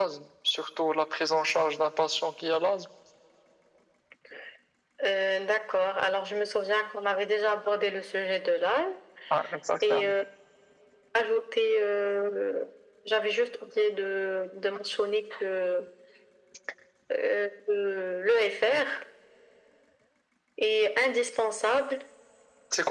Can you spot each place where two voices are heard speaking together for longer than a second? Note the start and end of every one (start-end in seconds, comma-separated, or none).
none